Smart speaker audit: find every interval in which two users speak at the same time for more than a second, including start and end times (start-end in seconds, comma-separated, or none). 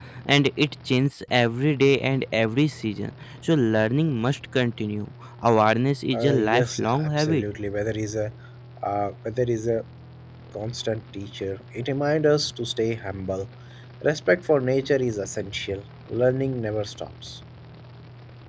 6.1-7.4